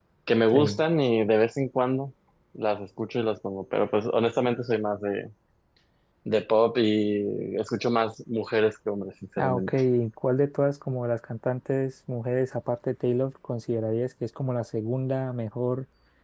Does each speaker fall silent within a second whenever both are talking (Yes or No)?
Yes